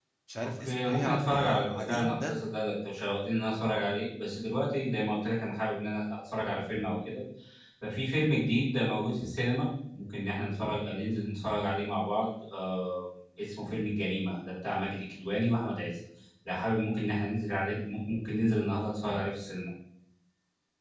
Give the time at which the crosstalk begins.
1 s

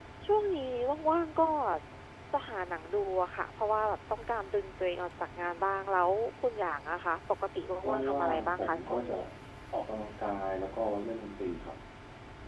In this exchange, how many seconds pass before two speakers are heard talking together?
8 s

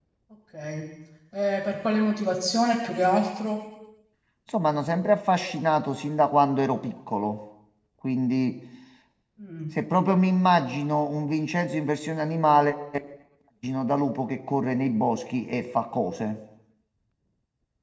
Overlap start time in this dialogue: none

